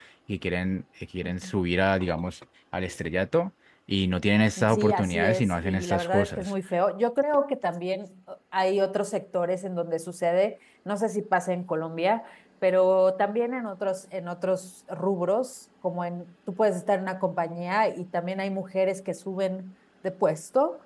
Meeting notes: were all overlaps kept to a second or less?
No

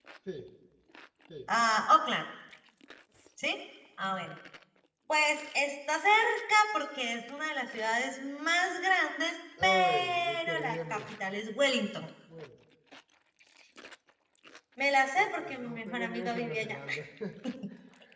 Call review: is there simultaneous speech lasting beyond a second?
Yes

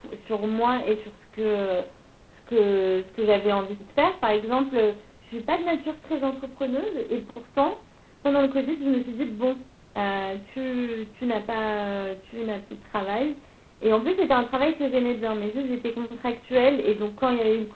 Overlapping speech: No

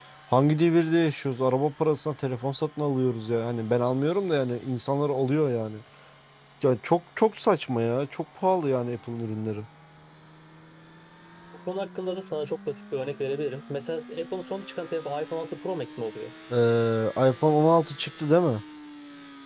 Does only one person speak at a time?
Yes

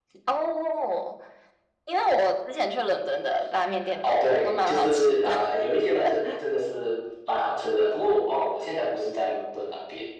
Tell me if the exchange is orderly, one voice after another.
No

